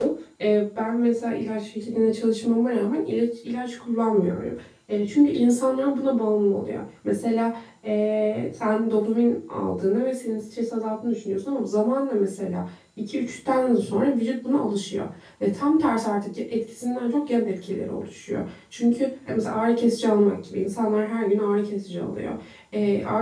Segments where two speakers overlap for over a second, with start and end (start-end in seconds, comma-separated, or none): none